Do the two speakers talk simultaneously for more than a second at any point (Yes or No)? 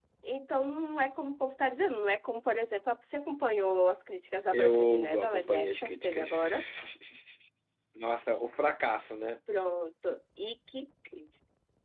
Yes